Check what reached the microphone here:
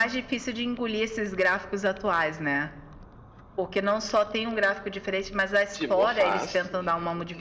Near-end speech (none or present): present